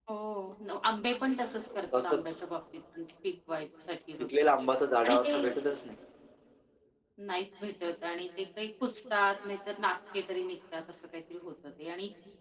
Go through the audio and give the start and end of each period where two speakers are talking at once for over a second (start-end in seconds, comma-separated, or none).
none